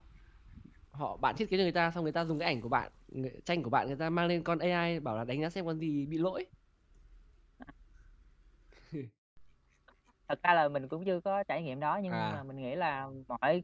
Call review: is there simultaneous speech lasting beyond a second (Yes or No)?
No